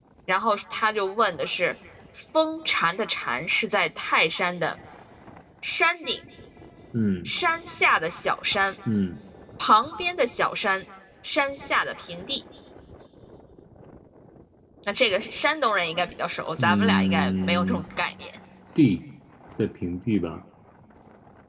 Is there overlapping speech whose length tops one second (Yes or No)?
Yes